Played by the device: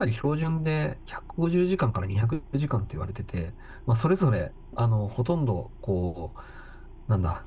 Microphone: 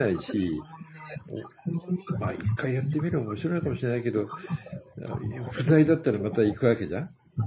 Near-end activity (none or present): present